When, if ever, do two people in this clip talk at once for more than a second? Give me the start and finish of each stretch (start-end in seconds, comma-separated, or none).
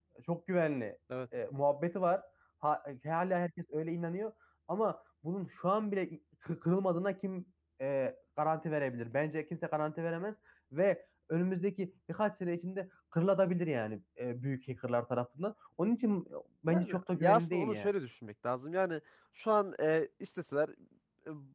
16.7-17.9